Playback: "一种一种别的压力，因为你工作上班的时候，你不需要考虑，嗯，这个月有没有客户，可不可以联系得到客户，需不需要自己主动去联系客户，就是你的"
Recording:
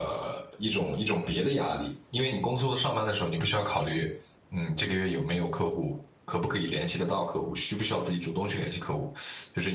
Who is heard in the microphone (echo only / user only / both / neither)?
echo only